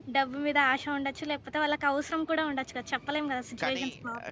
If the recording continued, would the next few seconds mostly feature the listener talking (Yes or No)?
Yes